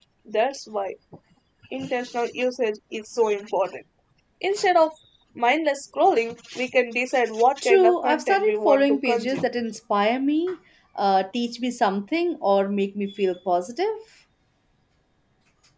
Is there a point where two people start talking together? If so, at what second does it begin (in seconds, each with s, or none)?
7.6 s